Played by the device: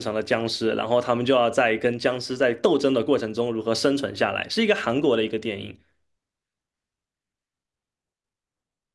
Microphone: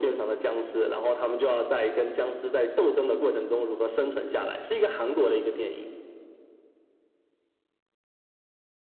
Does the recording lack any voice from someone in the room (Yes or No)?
Yes